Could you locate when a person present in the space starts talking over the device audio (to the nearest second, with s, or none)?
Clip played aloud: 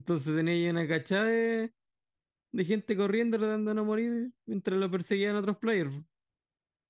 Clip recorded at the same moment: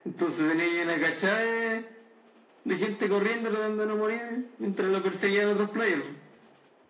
none